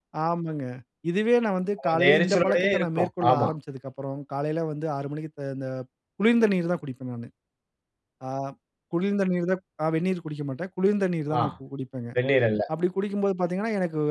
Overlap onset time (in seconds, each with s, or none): 1.9 s